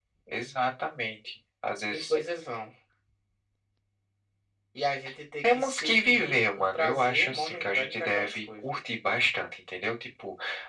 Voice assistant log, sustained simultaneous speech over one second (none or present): present